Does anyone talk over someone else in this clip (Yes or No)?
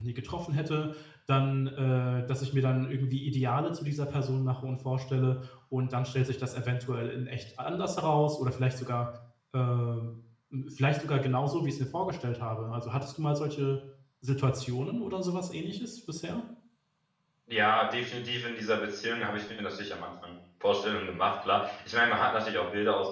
No